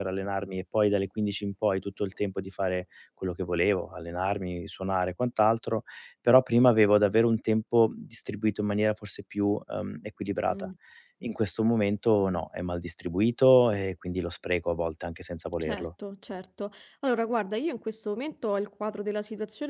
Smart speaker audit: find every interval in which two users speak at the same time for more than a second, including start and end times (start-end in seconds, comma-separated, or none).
none